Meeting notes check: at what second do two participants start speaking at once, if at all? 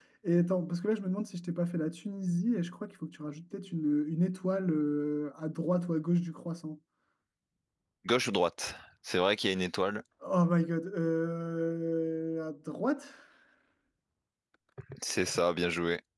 none

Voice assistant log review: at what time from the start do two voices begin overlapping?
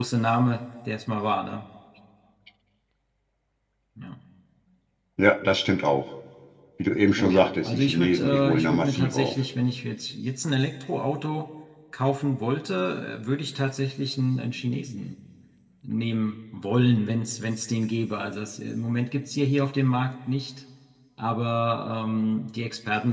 7.2 s

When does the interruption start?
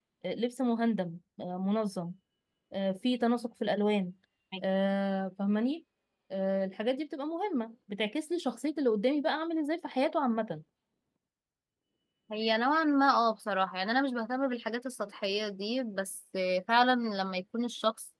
none

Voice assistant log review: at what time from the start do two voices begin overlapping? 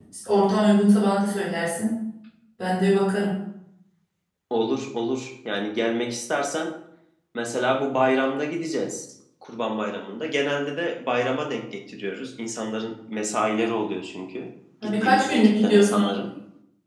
14.8 s

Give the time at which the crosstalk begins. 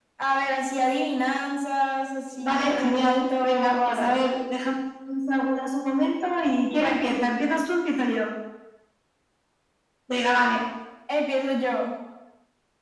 2.4 s

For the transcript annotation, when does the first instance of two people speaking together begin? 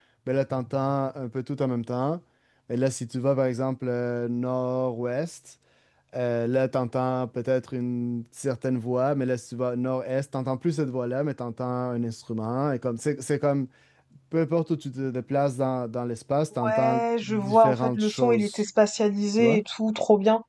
16.6 s

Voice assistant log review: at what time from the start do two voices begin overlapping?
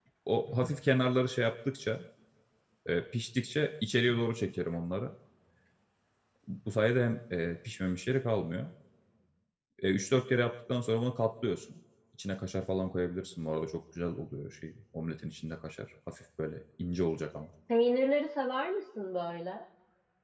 none

